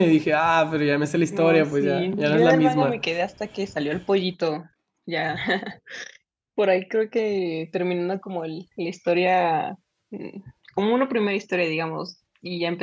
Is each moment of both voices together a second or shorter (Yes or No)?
No